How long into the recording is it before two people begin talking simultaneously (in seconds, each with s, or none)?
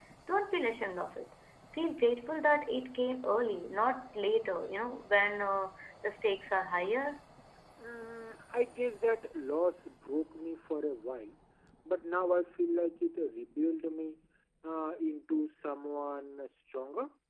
none